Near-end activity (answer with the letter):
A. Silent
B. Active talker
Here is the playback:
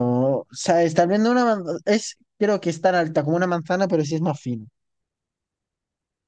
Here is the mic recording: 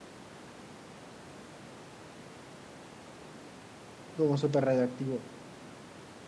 B